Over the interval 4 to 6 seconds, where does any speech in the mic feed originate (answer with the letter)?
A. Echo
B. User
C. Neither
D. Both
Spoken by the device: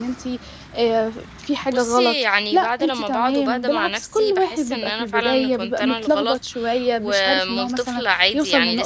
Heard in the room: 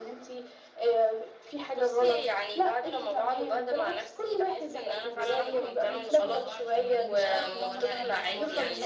D